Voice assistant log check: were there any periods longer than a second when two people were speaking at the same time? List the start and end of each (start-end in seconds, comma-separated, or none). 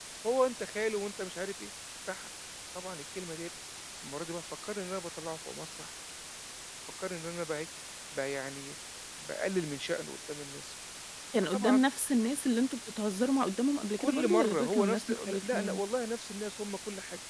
14.0-15.8